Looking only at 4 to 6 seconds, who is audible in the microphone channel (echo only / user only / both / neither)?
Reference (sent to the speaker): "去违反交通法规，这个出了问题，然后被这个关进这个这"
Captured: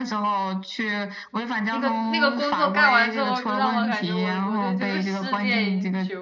both